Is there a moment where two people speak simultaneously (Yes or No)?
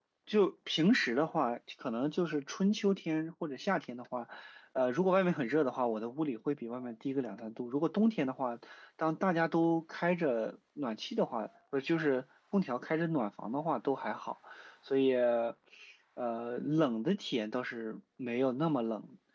No